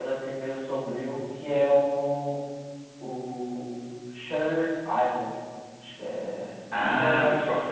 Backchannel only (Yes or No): No